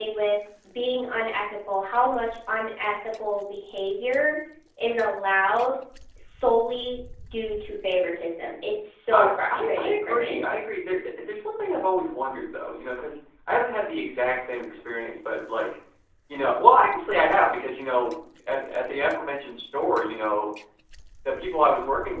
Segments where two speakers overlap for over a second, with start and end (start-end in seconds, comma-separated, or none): 9.1-10.4